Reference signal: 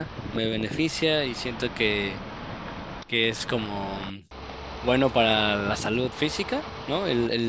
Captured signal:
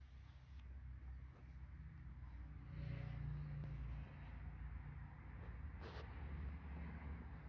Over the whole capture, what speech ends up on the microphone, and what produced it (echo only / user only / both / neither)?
neither